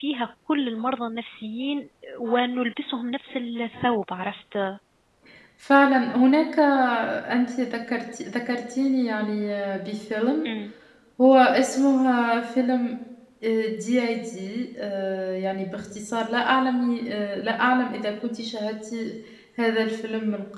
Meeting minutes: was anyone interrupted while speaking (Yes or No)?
No